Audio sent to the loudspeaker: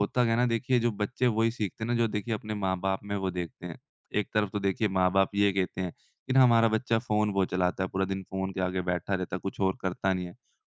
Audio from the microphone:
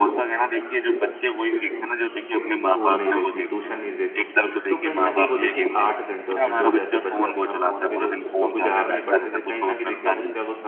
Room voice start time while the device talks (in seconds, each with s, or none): 2.7 s